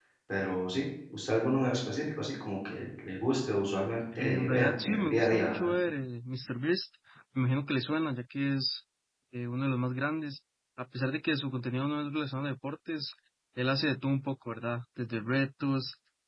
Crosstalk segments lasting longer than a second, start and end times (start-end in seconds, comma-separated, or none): 4.2-5.7